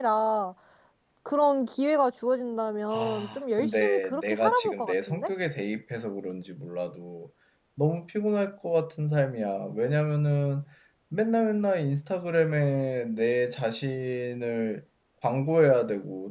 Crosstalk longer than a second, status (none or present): present